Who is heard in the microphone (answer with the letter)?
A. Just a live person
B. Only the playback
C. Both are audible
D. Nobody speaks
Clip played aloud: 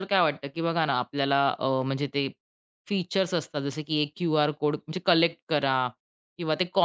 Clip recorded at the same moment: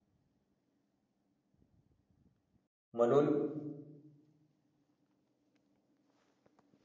A